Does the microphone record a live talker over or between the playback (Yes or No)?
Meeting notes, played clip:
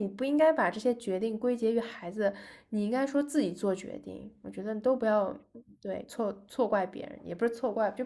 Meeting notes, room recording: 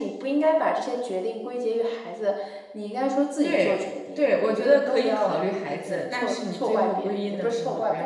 Yes